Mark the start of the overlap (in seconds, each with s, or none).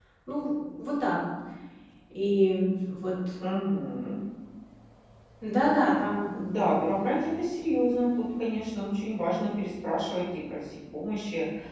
none